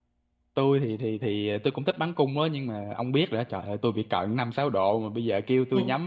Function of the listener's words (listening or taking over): listening